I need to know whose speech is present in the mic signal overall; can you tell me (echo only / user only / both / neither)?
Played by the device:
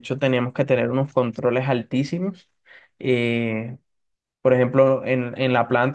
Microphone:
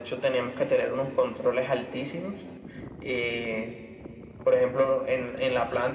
echo only